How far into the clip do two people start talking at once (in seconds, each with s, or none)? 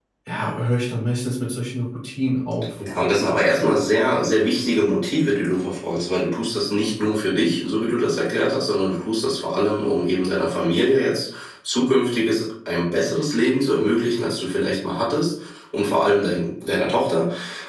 none